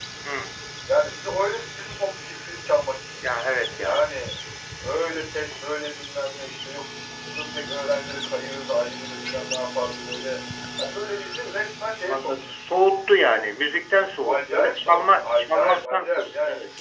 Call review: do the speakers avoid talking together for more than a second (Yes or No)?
No